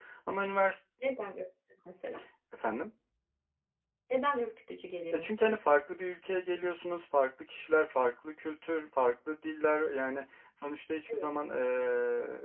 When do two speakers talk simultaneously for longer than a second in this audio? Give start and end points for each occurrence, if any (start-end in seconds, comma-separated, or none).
none